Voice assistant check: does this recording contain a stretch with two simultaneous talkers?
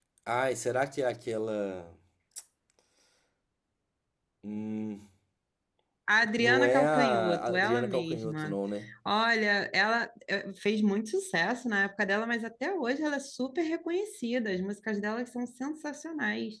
Yes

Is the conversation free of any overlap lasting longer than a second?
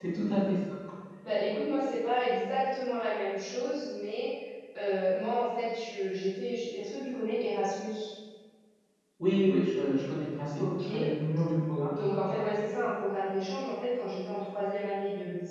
Yes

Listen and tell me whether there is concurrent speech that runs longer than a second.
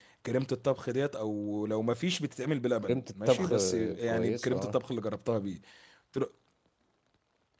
Yes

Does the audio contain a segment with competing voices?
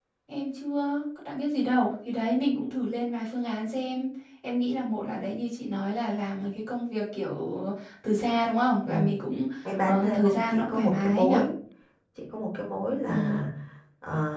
Yes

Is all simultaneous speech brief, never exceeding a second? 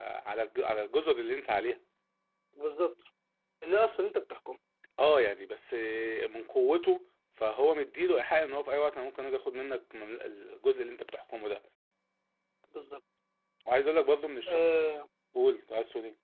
Yes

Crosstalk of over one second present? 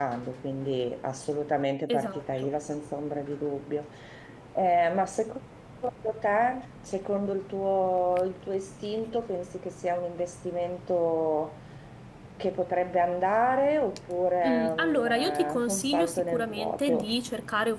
Yes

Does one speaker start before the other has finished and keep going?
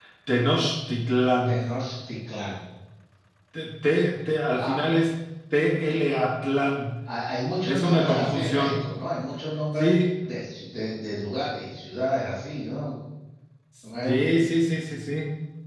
Yes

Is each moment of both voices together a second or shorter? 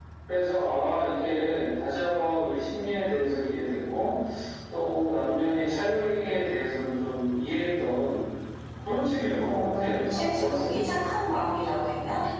No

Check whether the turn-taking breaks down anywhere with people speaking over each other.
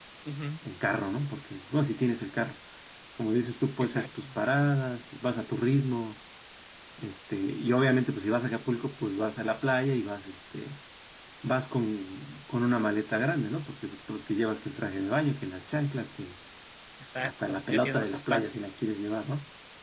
Yes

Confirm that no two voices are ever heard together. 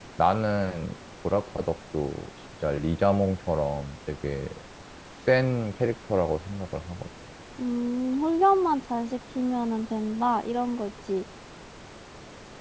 Yes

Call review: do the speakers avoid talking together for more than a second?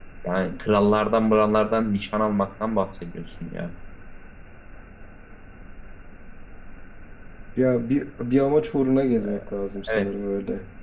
Yes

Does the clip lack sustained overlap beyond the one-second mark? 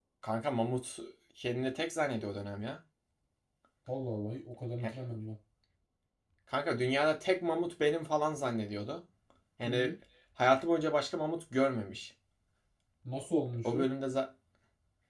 Yes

